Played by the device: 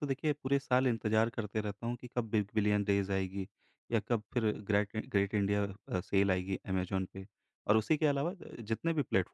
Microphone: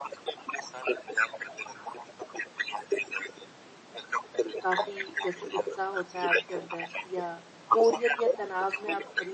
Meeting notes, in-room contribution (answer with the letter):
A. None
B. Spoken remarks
B